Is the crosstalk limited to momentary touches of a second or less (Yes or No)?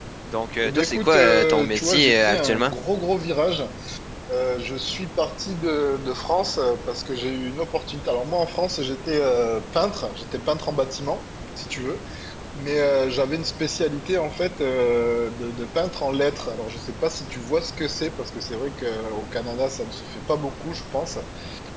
No